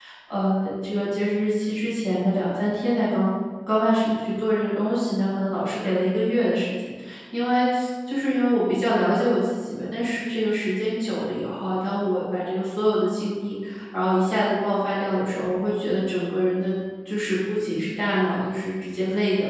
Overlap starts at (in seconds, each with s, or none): none